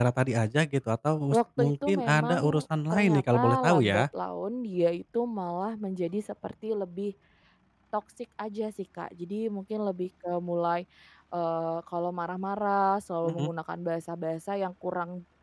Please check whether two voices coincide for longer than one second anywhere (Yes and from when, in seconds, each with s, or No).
Yes, from 1.3 s